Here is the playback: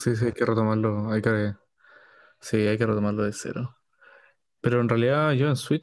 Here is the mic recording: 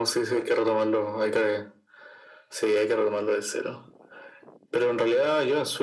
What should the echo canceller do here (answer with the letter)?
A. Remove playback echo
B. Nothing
A